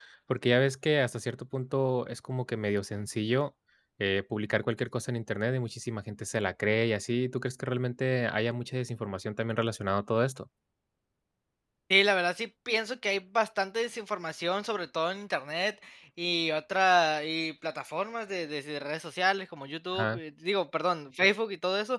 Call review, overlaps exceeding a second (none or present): none